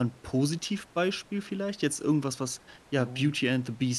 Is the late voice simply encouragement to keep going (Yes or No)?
Yes